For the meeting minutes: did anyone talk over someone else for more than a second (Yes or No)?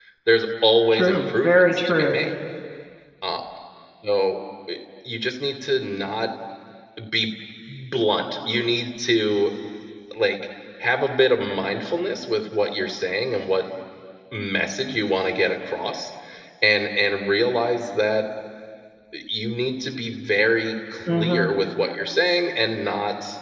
Yes